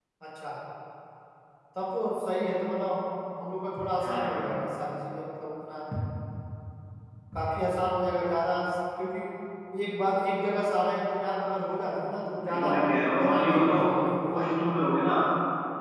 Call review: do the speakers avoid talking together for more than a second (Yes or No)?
No